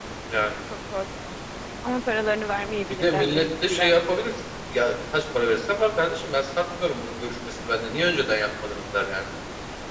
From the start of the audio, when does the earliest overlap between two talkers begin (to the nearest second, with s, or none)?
3 s